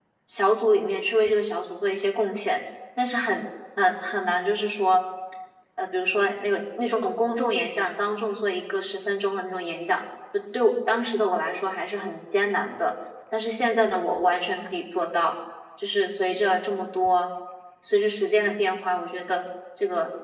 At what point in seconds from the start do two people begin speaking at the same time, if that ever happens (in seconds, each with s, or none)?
none